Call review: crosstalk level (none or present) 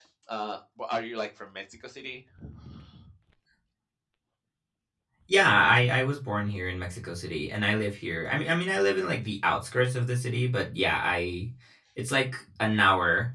none